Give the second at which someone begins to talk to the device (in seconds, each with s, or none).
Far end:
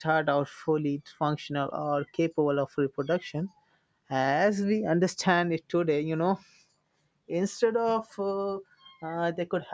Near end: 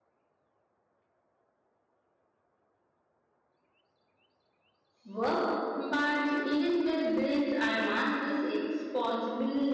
5.0 s